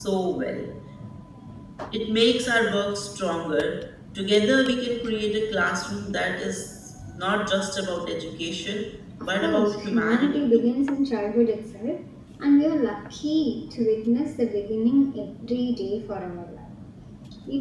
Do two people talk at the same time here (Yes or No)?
Yes